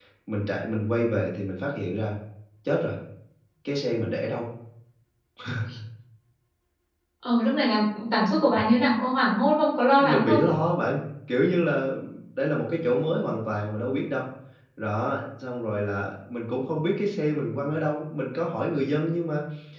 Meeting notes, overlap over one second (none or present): none